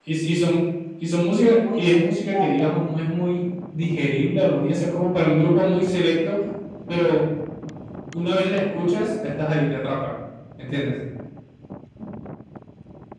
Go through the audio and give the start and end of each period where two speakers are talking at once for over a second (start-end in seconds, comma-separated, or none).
1.5-3.0